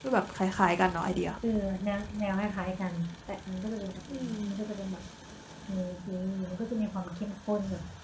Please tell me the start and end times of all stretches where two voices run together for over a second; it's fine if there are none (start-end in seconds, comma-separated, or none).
none